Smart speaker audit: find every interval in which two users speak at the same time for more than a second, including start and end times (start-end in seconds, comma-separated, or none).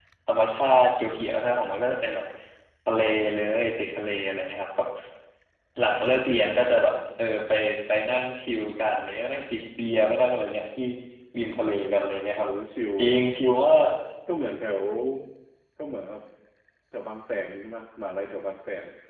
none